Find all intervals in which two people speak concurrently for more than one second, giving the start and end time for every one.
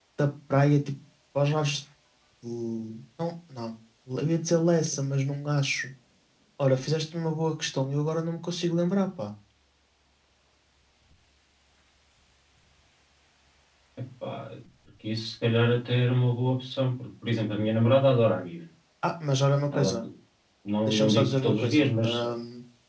20.9-22.3

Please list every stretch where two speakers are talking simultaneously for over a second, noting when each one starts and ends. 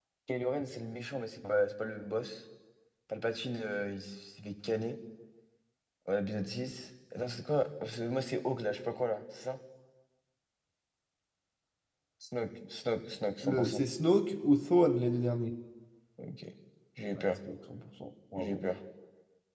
none

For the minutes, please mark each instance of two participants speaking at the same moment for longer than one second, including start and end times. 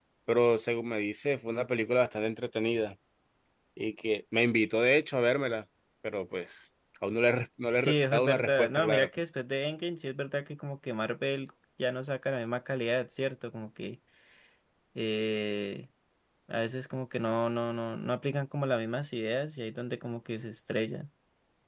7.8-9.1

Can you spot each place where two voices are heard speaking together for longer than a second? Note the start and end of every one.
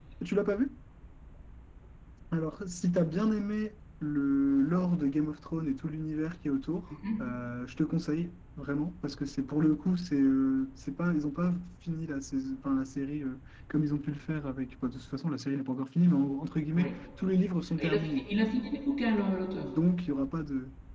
none

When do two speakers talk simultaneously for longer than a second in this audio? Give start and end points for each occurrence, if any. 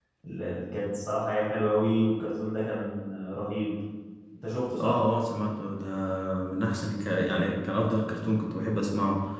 none

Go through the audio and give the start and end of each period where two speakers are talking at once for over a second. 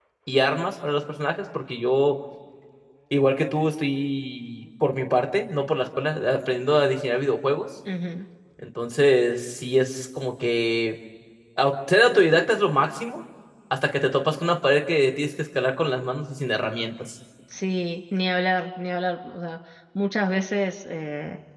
none

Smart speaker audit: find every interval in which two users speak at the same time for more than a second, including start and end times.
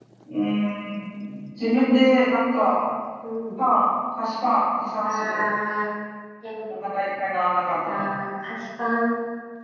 none

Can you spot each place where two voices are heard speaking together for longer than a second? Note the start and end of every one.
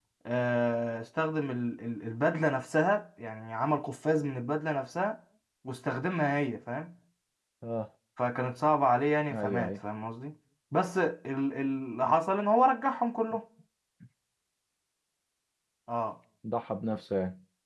none

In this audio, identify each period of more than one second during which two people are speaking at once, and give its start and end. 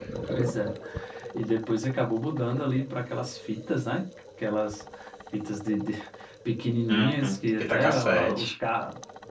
6.9-8.5

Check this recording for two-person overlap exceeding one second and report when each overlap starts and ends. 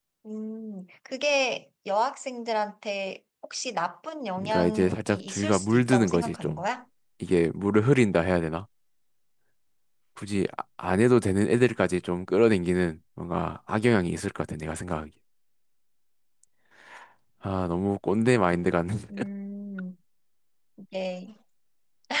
4.4-6.6

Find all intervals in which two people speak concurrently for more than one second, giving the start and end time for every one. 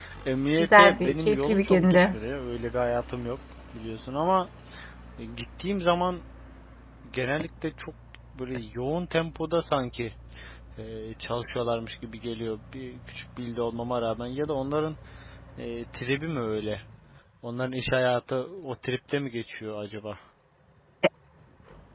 0.6-2.1

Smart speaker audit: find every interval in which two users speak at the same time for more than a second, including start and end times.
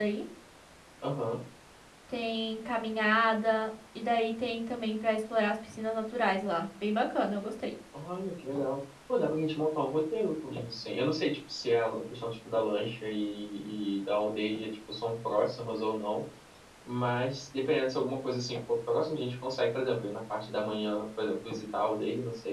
none

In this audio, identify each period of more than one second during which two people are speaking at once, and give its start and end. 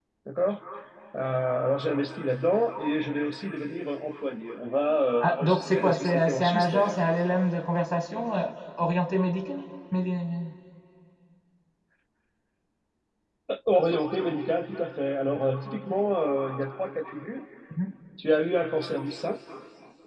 5.2-7.0

